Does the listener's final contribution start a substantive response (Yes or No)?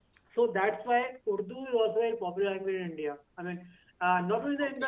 No